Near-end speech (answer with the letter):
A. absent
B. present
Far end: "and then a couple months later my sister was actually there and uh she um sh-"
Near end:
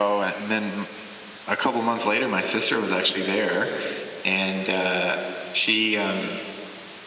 A